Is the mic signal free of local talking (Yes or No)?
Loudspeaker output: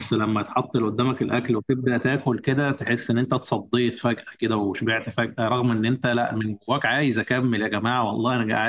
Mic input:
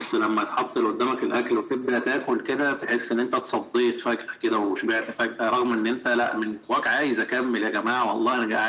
Yes